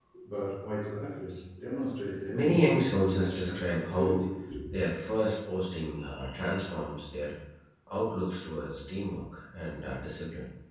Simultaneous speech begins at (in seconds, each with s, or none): 2.3 s